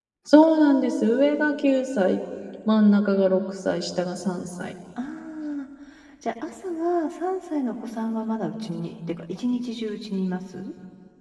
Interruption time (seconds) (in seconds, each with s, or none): none